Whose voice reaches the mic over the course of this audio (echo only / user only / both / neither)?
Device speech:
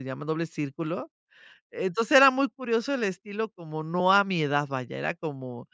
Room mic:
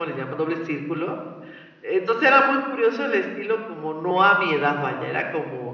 echo only